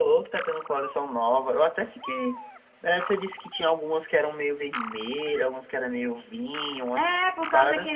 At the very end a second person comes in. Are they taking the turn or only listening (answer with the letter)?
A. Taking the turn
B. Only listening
A